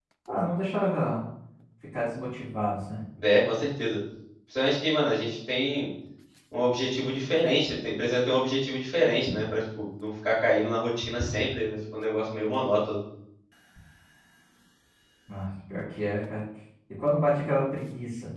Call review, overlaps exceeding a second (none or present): none